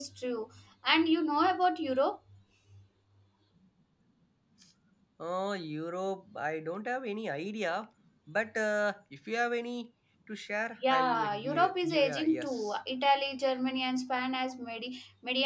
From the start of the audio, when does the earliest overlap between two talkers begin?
11 s

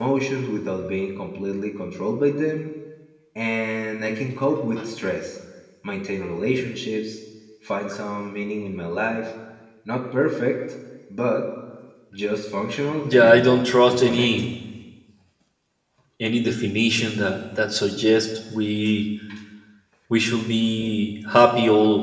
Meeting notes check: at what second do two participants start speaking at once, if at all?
13 s

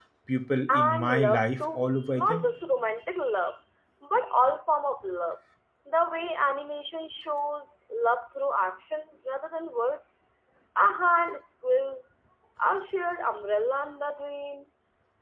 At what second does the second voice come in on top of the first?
1 s

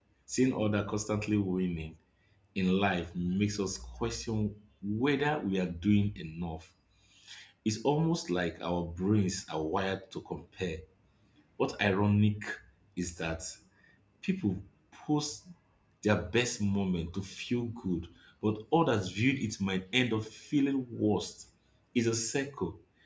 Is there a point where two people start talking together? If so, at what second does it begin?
none

